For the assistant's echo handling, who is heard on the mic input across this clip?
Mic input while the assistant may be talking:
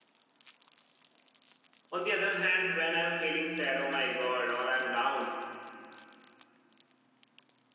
user only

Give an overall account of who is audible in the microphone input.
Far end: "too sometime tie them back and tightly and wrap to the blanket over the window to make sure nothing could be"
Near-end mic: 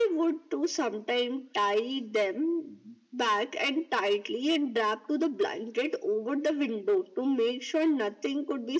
echo only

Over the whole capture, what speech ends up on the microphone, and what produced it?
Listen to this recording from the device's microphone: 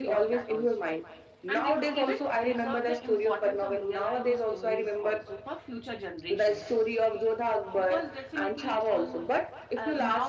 both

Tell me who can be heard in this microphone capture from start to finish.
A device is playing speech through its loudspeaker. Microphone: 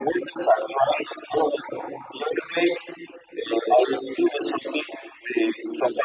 echo only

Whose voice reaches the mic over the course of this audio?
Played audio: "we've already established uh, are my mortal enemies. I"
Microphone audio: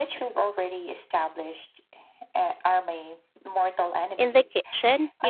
both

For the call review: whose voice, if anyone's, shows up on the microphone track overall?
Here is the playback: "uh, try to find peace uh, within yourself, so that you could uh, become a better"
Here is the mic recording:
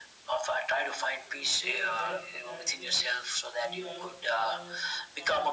both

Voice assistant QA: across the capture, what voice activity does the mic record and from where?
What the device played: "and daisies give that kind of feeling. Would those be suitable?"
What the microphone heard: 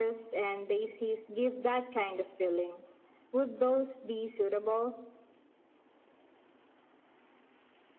echo only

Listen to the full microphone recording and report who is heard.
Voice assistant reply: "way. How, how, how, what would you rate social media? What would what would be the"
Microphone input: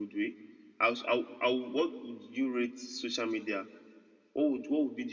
echo only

